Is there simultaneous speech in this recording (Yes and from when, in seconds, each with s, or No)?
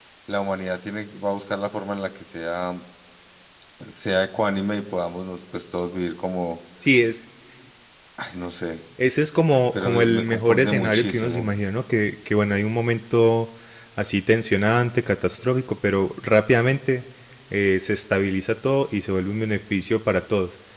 Yes, from 9.8 s